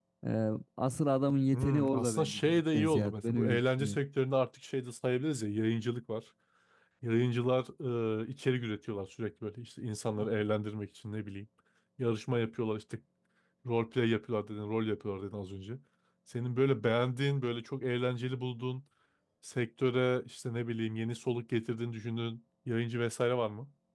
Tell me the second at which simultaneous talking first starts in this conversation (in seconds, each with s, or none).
1.5 s